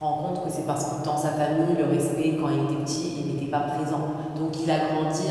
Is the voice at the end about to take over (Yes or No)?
No